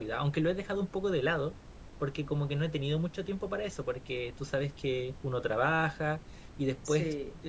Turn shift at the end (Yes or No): No